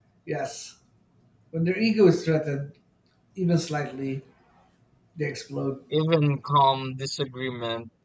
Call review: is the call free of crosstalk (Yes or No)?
Yes